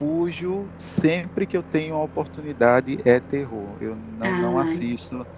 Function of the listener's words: listening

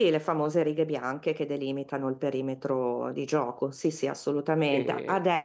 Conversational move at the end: listening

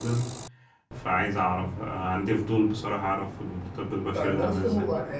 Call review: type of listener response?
taking over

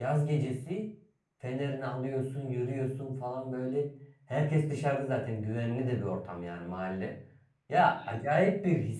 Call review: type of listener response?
listening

